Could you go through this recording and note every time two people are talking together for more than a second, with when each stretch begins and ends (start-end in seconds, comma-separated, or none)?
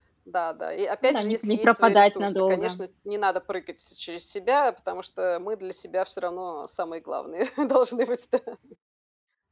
1.1-2.8